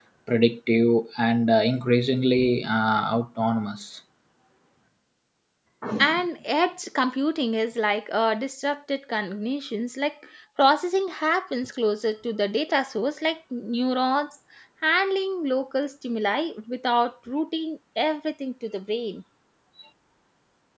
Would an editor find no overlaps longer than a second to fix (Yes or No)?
Yes